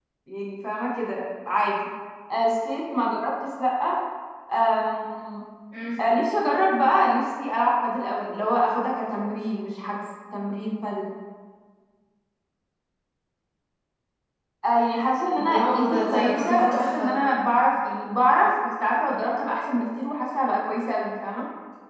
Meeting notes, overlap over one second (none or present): present